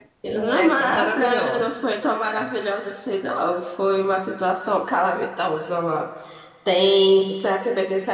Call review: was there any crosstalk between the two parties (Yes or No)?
Yes